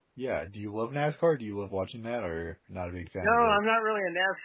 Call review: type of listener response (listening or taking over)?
taking over